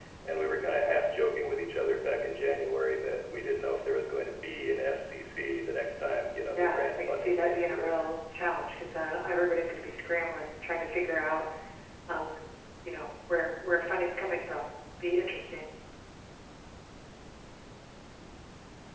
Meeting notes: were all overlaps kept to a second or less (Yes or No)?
No